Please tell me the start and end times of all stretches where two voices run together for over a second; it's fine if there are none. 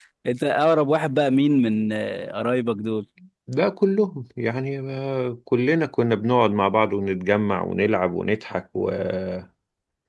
none

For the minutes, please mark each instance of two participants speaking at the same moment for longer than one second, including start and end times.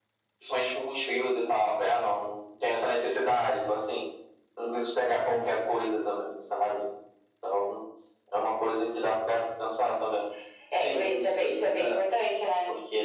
10.7-12.0

